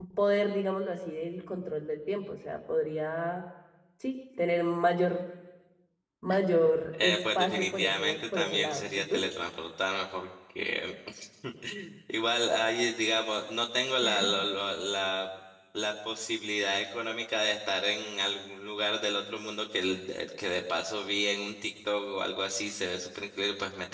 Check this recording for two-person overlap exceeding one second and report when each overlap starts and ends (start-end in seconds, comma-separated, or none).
7.0-9.2